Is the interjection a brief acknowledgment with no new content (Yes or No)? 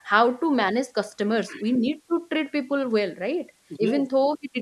Yes